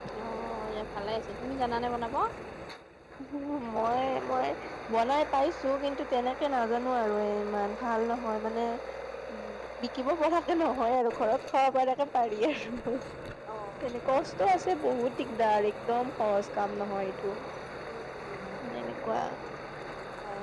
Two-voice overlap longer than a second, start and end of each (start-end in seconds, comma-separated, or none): none